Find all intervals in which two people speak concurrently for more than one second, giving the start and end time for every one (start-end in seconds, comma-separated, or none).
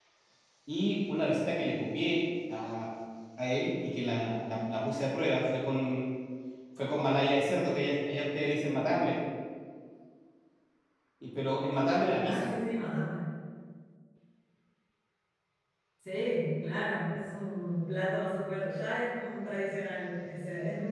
none